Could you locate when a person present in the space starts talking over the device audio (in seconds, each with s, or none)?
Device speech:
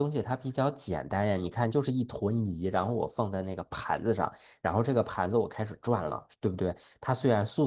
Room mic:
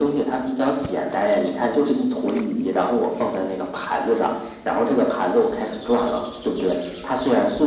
none